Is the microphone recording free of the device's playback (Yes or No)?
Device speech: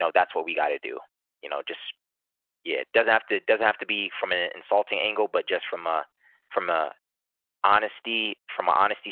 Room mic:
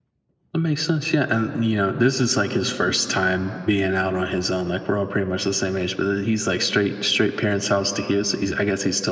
Yes